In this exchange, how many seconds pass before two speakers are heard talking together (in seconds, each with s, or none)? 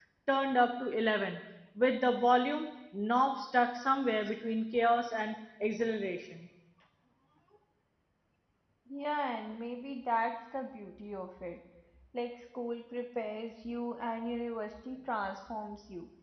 none